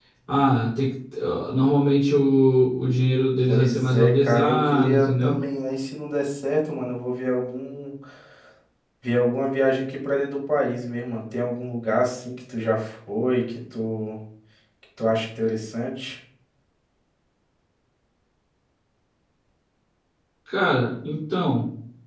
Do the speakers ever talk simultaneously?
Yes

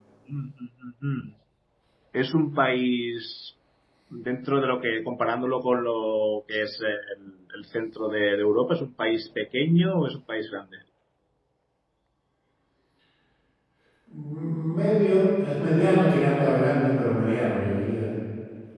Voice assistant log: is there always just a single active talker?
Yes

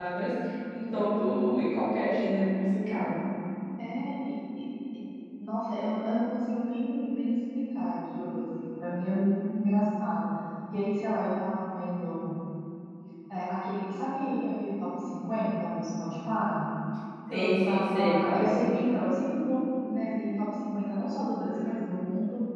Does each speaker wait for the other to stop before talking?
No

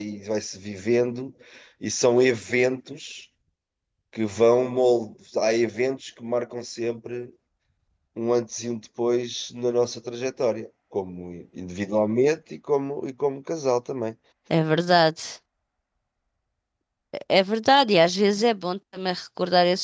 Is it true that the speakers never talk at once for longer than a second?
Yes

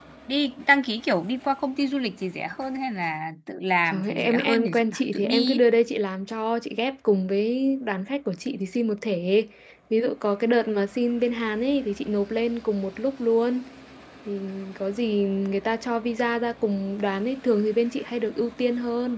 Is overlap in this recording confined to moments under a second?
No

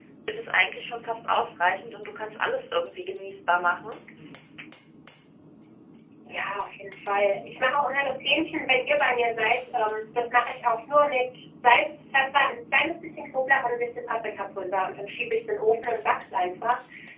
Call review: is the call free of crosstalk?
Yes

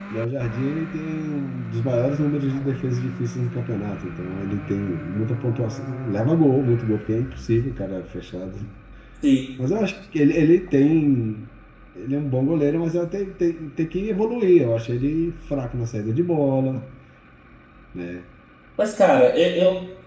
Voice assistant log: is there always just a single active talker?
Yes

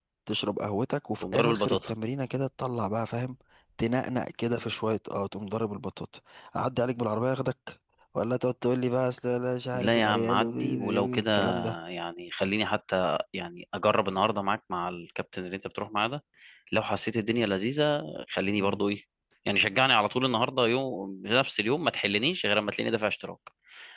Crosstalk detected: Yes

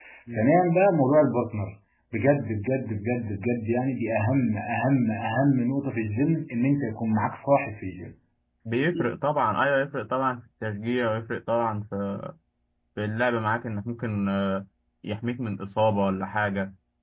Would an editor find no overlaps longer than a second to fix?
Yes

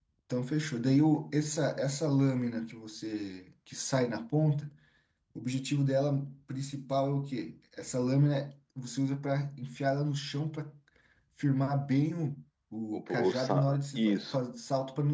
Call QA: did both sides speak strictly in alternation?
No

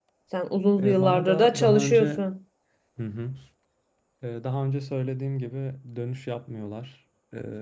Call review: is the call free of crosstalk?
No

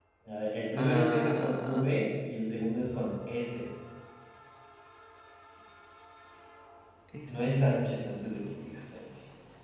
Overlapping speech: Yes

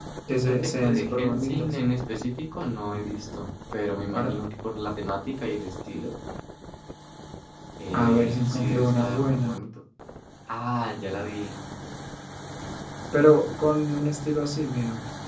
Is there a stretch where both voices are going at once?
Yes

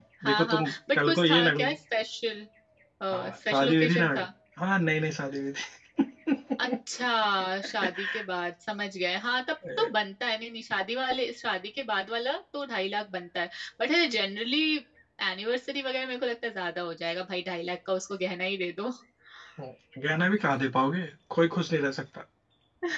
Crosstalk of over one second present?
Yes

